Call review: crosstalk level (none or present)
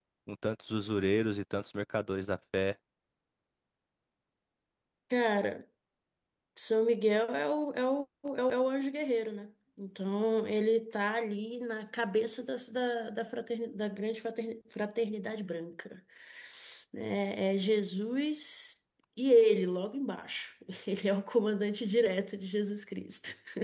none